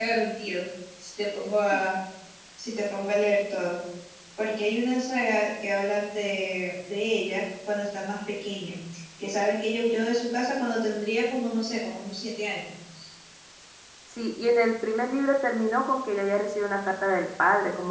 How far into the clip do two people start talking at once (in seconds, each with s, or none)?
none